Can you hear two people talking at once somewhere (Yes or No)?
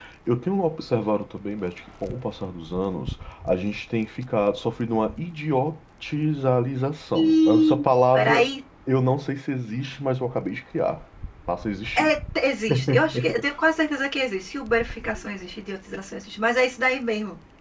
Yes